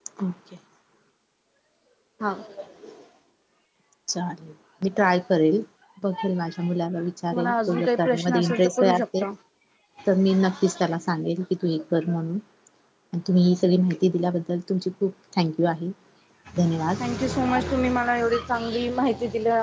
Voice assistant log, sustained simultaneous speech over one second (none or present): present